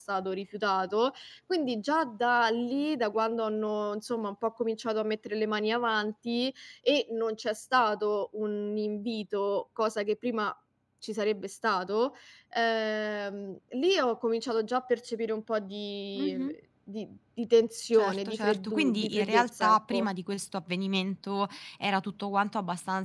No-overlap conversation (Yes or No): No